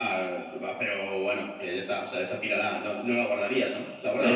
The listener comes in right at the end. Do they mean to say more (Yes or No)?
Yes